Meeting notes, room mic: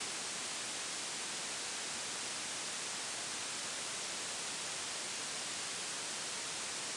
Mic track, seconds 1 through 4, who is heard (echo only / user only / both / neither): neither